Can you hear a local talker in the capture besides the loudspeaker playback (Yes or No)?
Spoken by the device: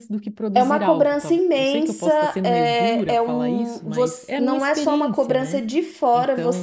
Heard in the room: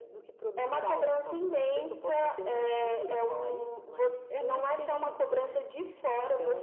No